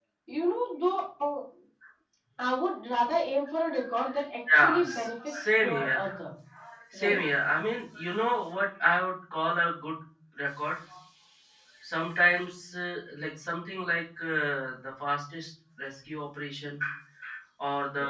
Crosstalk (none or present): present